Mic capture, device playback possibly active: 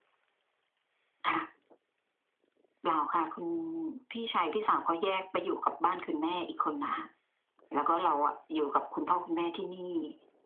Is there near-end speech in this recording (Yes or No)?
No